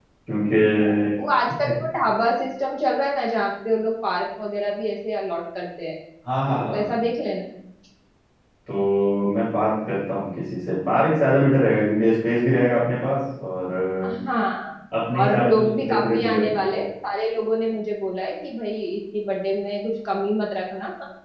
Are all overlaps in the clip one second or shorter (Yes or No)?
No